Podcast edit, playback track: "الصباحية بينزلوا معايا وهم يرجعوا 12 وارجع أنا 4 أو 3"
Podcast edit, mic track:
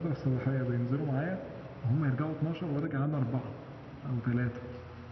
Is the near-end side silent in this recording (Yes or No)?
Yes